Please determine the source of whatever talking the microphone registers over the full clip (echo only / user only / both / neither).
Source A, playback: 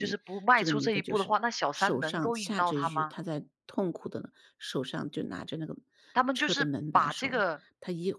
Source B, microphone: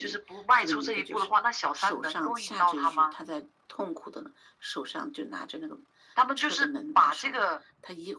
echo only